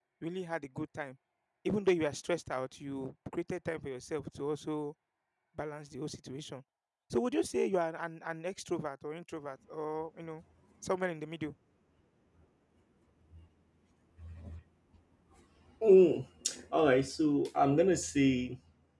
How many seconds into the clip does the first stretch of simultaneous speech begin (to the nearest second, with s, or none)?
none